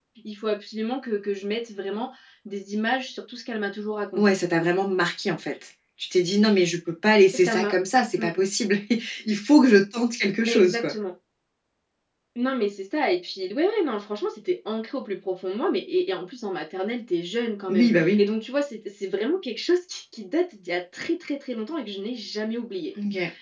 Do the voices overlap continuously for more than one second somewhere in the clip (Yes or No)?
No